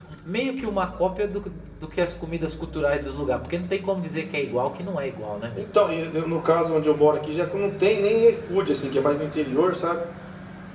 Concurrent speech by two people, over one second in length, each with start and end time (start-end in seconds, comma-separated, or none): none